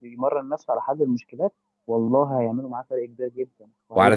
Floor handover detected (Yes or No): Yes